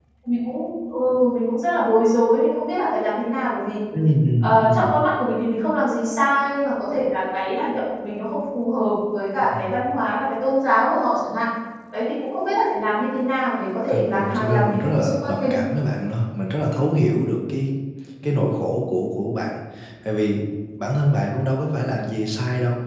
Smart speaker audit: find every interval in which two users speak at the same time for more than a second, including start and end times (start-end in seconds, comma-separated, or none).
13.9-15.6